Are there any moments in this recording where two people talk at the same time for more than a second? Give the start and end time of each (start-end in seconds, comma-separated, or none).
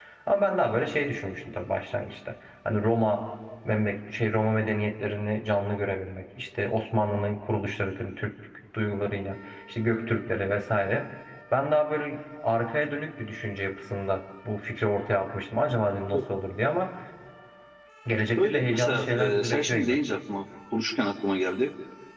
18.4-20.0